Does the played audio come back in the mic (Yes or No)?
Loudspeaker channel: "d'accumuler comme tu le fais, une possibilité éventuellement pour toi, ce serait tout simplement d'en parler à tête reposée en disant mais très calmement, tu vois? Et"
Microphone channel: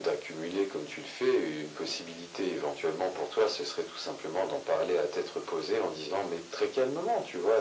Yes